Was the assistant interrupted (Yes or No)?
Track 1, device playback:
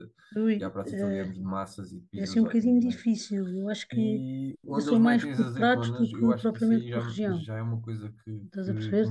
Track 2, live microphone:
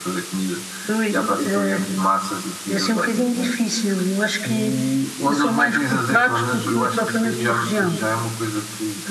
No